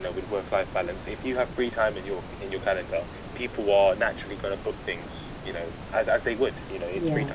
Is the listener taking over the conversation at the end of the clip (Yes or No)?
No